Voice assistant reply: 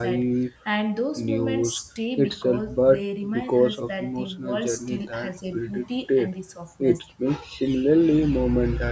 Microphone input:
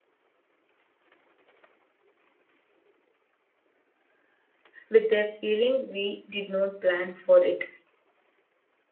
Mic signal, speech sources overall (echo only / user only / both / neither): user only